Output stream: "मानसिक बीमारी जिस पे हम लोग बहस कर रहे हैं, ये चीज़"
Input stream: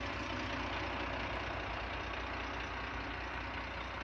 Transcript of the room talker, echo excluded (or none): none